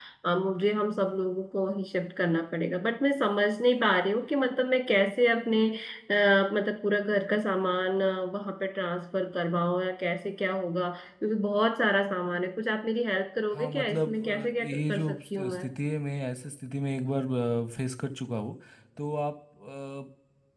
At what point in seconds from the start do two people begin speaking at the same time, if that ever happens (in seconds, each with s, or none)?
13.5 s